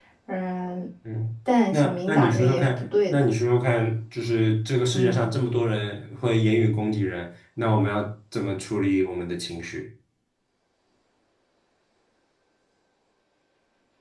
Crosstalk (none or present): present